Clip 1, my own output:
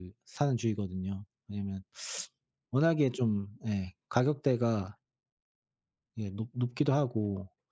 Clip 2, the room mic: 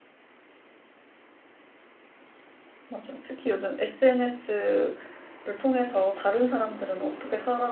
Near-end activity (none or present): present